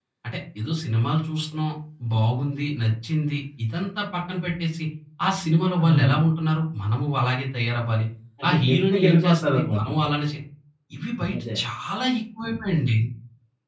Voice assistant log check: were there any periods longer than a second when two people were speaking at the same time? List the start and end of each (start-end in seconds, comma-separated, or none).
8.5-9.9